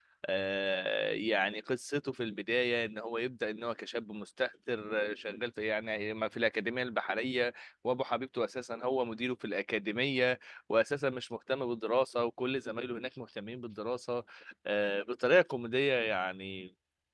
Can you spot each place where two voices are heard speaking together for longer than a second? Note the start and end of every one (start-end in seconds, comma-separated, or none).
none